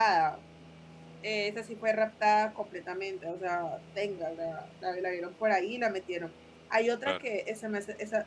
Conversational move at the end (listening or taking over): listening